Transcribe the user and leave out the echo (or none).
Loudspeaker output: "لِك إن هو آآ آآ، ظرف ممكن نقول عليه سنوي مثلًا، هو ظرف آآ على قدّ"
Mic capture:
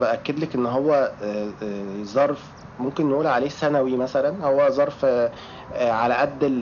none